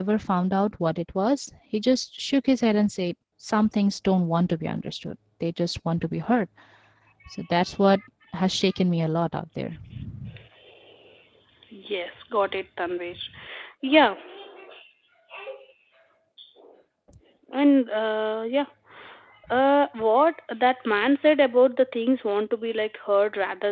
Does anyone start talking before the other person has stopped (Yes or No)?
No